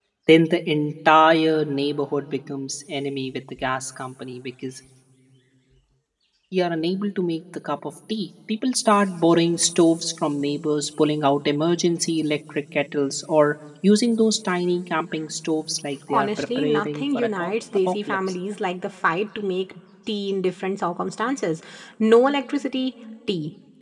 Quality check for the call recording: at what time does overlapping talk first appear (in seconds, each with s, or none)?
16.1 s